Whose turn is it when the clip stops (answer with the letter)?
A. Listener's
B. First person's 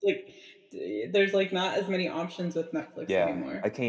A